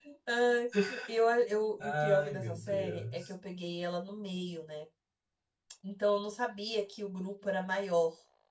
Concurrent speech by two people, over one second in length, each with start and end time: 1.8-3.2

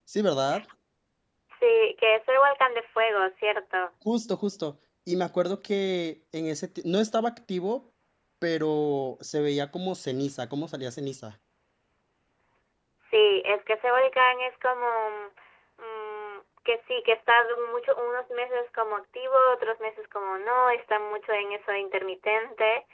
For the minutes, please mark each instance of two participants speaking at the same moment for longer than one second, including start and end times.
none

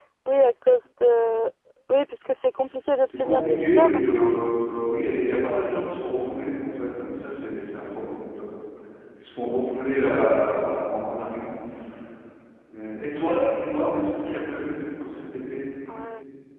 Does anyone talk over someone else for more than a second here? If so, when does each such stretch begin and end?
3.0-4.5

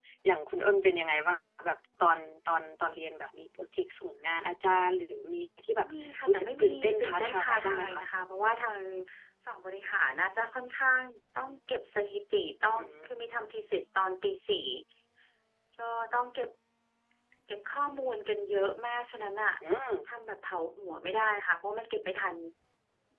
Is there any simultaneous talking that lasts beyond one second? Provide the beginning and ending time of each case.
6.3-8.0

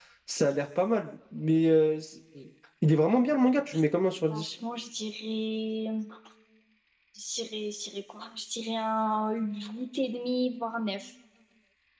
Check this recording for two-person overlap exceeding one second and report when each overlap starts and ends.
none

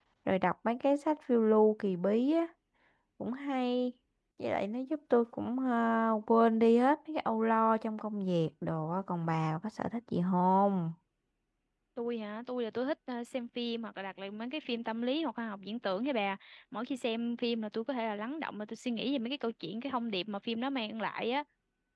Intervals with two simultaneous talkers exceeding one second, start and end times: none

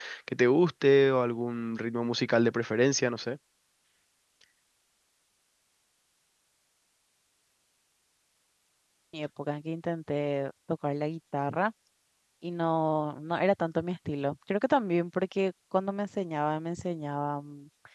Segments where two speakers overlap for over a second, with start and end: none

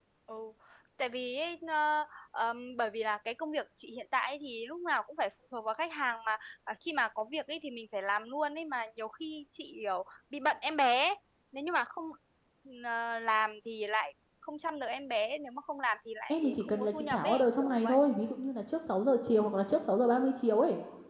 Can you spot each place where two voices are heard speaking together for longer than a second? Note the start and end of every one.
16.3-18.0

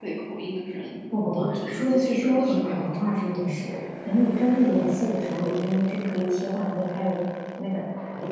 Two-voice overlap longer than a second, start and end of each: 1.3-3.8

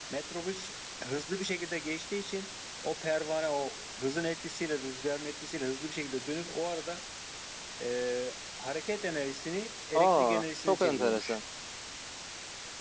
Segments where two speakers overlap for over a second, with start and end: 9.9-11.4

